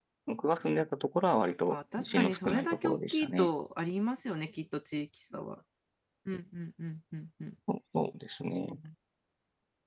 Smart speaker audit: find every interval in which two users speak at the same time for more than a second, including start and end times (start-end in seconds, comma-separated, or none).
1.7-3.5